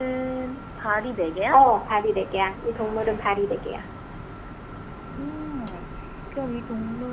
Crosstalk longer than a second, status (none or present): none